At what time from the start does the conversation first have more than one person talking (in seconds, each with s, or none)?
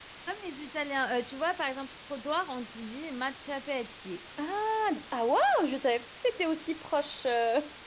none